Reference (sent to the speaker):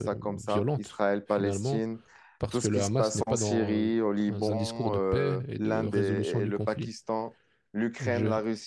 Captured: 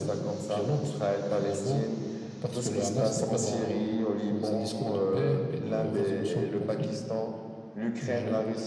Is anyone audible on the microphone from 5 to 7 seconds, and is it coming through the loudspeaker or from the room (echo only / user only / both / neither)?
echo only